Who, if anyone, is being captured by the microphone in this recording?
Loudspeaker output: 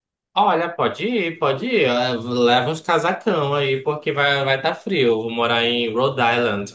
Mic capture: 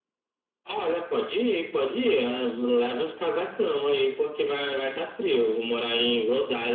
echo only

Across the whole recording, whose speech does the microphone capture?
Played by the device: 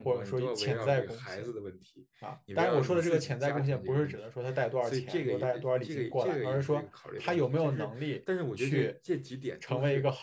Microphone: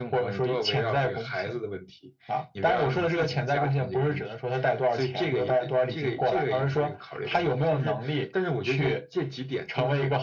echo only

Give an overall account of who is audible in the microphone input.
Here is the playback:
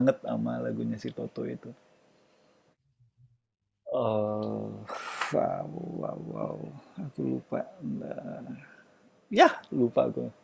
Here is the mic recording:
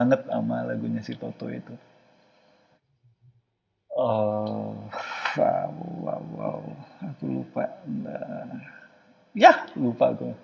echo only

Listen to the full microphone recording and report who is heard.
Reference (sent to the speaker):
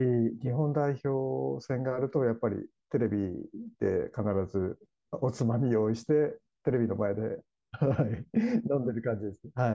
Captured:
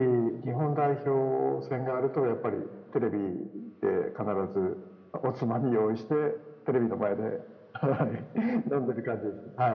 echo only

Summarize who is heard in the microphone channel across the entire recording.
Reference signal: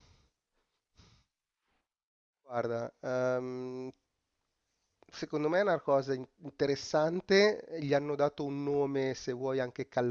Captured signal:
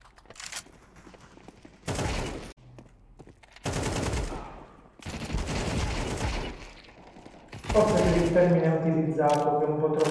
user only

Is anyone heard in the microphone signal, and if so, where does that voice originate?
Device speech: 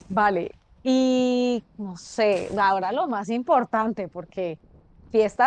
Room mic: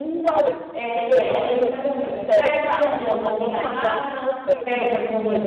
both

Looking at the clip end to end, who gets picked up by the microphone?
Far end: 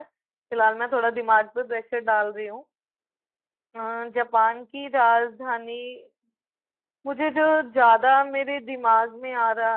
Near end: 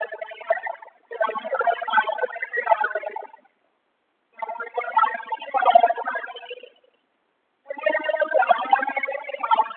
echo only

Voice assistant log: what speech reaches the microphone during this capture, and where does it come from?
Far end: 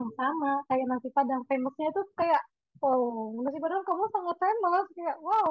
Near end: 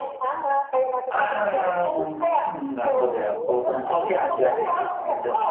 both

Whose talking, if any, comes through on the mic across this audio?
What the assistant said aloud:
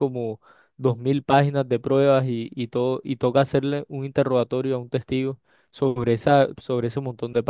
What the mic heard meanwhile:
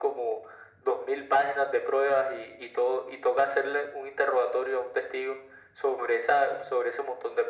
echo only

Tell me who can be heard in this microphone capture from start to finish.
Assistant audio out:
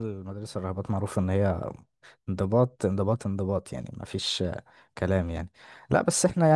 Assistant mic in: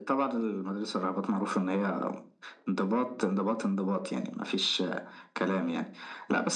echo only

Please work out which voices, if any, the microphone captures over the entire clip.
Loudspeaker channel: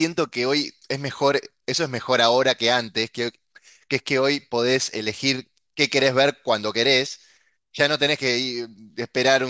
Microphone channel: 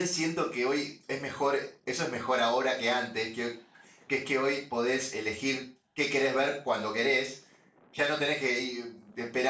echo only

